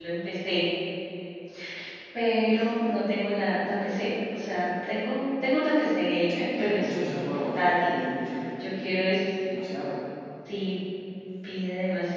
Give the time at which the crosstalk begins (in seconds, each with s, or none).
6.3 s